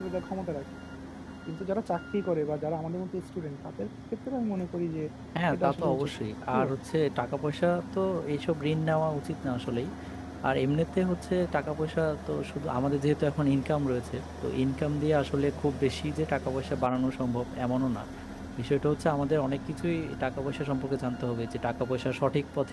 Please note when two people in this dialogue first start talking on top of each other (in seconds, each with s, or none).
5.5 s